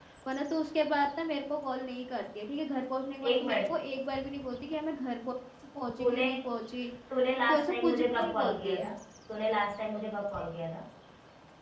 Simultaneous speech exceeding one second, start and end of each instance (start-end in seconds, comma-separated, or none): 7.5-8.9